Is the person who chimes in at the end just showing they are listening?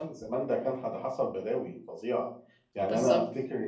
Yes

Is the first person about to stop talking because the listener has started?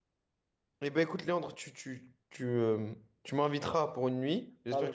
No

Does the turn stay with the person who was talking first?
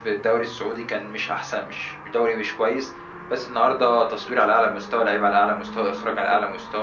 Yes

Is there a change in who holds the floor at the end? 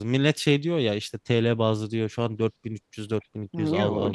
Yes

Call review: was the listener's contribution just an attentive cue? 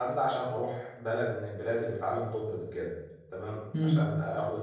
Yes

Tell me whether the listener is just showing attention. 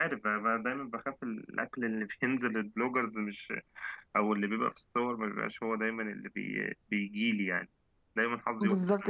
No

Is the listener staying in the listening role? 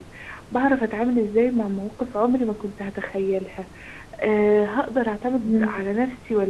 Yes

